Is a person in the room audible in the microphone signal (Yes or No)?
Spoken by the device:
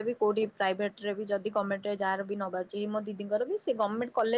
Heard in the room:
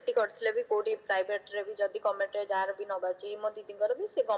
No